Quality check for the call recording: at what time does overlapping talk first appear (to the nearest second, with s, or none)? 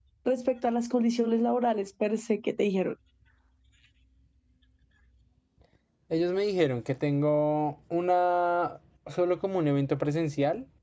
none